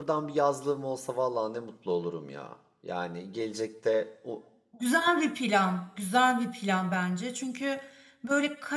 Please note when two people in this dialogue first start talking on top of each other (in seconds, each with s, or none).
none